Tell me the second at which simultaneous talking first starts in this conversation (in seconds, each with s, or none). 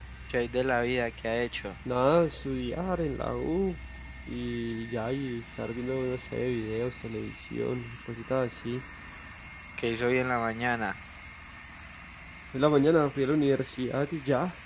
none